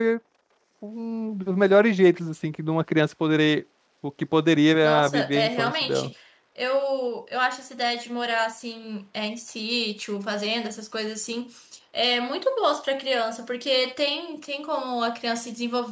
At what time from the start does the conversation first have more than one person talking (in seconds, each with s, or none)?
4.8 s